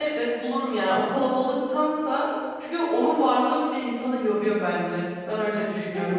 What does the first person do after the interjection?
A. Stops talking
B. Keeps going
A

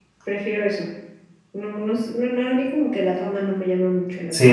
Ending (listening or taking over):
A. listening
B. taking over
B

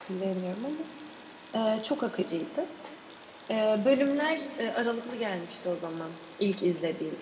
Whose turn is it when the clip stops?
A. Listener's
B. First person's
B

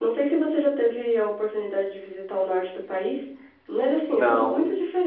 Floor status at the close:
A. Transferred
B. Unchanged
B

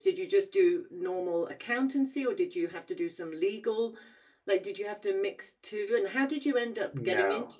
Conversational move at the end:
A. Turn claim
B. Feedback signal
A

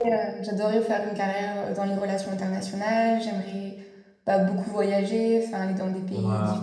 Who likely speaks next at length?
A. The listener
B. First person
B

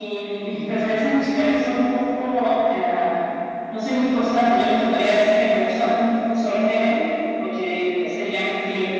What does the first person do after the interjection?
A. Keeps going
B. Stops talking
A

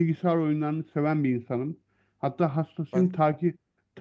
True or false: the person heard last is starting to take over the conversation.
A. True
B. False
B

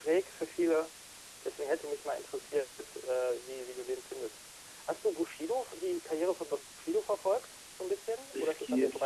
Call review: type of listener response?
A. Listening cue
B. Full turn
B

